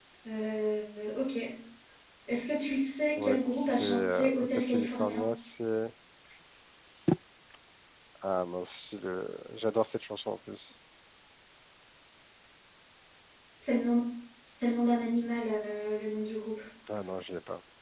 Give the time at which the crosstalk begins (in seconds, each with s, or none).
3.1 s